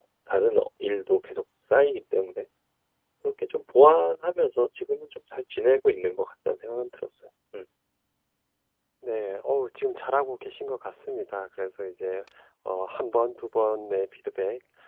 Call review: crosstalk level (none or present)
none